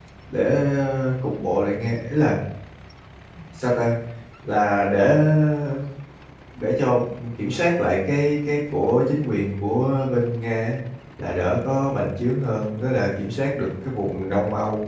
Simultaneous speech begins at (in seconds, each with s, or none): none